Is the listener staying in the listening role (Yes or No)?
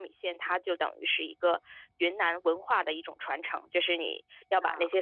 Yes